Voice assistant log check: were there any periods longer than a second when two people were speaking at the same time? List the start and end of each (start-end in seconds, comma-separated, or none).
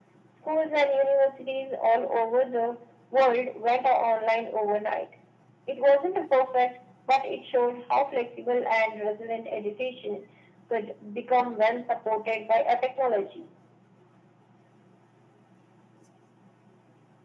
none